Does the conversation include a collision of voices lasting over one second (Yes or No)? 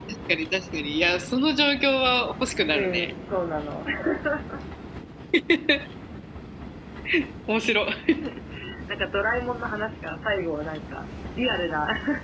No